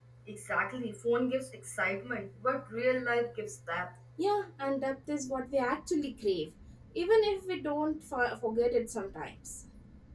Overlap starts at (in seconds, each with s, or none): none